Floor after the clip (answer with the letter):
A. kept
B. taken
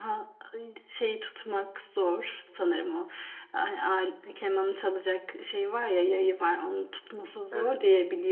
A